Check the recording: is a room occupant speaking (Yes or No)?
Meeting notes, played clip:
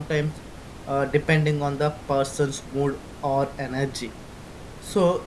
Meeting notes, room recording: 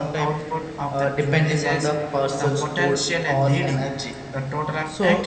Yes